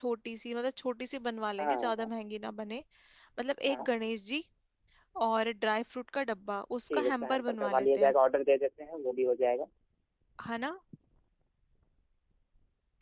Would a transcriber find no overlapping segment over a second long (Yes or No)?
No